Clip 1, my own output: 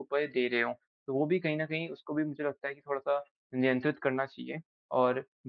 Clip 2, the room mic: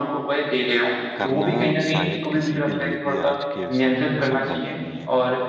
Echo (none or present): present